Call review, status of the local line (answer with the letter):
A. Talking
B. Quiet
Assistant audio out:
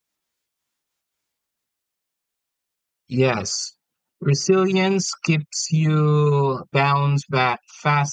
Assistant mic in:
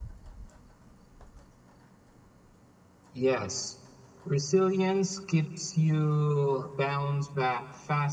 B